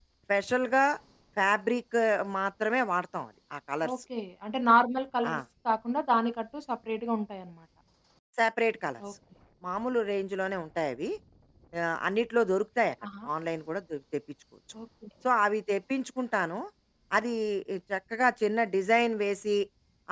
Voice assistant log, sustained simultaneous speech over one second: none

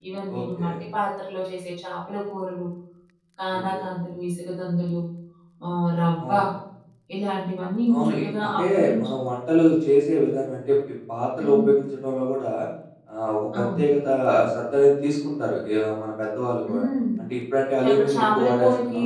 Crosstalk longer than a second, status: present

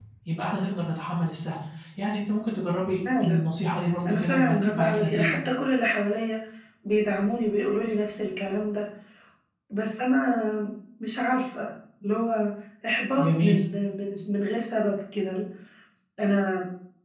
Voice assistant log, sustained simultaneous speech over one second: present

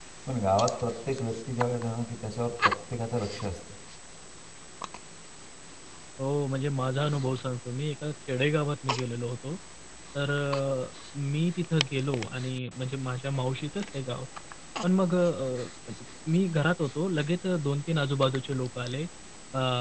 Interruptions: none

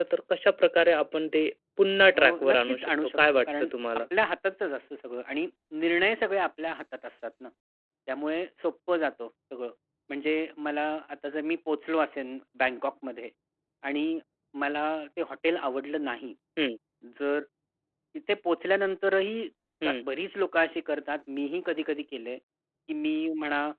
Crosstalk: present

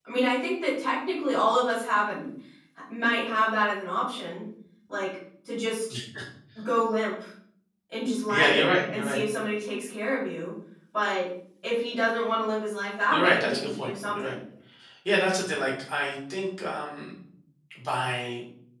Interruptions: present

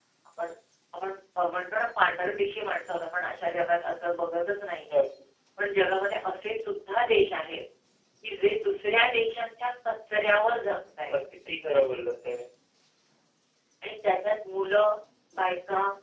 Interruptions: none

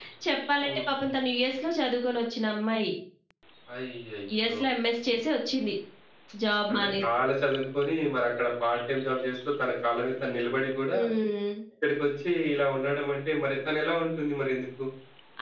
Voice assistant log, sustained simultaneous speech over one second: none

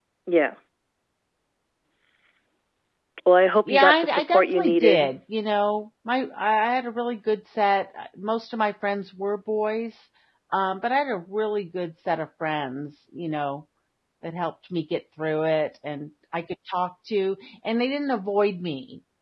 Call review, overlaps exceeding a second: present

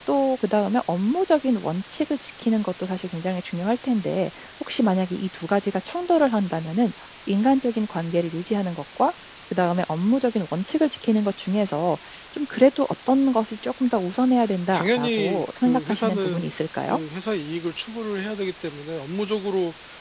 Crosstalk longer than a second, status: present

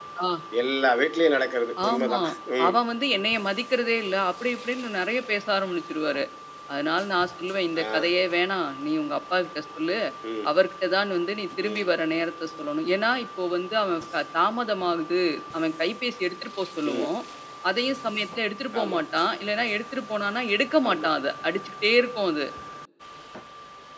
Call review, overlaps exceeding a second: none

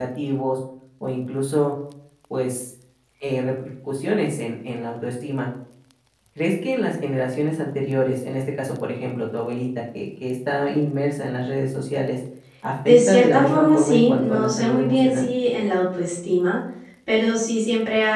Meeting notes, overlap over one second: present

